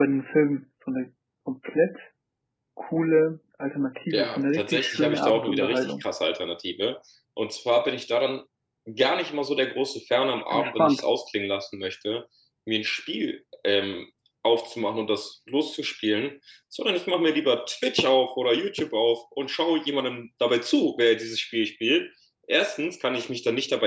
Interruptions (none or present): present